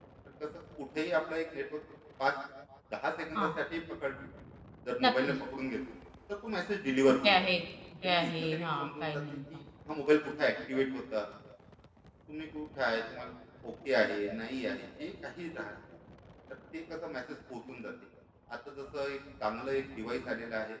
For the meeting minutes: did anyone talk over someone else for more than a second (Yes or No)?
Yes